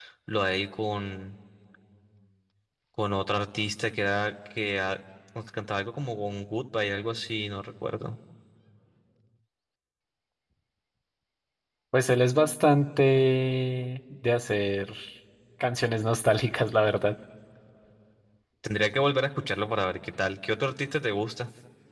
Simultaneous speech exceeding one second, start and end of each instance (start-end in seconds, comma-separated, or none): none